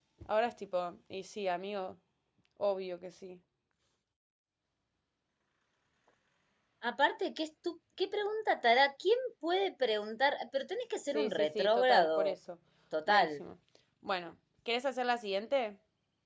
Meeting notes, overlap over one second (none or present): present